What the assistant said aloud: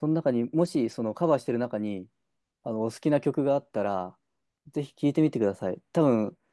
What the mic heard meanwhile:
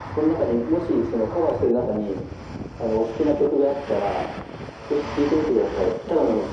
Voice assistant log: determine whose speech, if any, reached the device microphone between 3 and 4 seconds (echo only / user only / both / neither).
echo only